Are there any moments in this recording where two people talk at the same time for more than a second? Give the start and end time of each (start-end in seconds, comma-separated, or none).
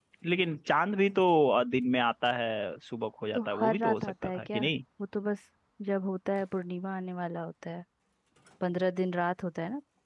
3.4-4.6